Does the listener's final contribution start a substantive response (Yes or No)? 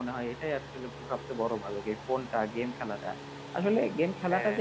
No